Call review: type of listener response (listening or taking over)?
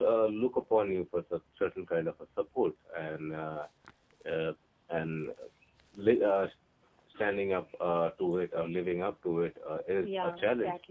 taking over